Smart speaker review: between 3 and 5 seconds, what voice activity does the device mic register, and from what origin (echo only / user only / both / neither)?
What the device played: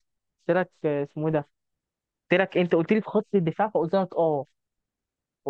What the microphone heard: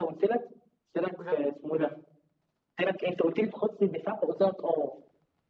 echo only